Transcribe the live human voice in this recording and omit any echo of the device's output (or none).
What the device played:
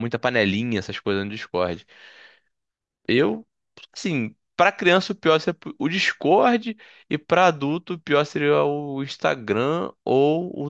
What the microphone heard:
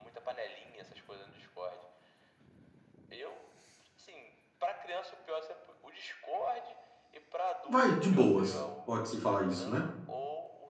vai, de boas, pode-se falar isso, né?